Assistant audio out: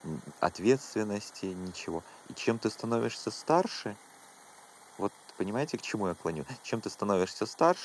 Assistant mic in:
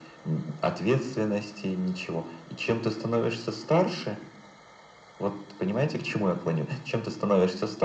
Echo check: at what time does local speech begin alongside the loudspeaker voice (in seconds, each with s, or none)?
none